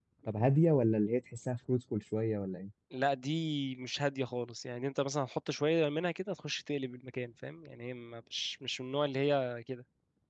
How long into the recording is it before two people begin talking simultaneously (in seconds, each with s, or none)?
none